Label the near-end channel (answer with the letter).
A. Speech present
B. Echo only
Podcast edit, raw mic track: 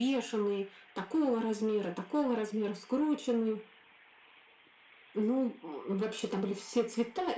B